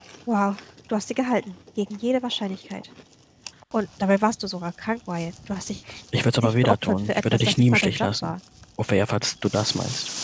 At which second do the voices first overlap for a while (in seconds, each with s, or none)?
6.4 s